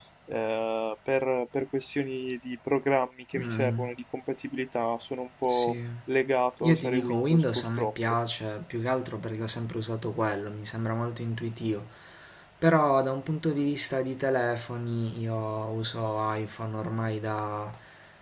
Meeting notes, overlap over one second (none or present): present